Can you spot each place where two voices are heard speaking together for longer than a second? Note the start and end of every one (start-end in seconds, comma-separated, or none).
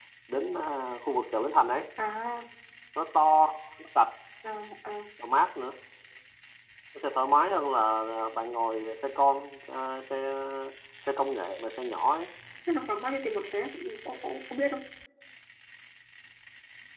none